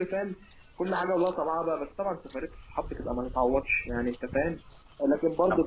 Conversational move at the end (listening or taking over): listening